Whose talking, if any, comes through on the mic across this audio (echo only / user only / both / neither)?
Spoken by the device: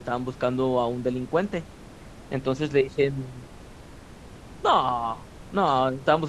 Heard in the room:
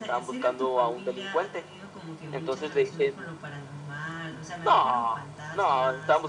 both